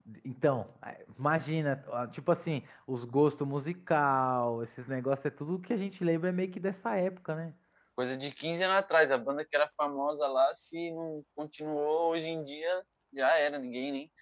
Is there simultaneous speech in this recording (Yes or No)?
No